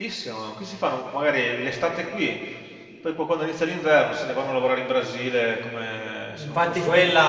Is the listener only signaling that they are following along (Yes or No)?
No